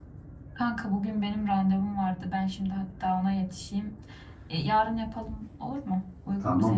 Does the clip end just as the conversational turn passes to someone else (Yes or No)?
Yes